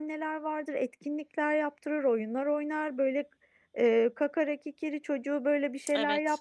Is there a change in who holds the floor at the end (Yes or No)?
No